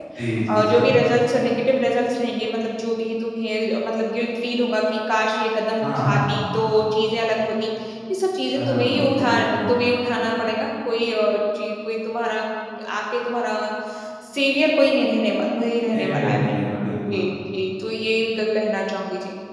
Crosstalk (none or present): present